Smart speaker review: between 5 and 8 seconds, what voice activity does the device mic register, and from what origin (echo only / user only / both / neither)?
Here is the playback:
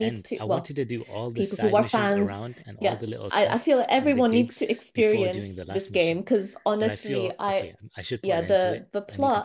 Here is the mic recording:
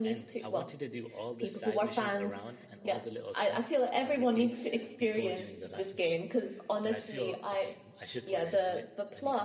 echo only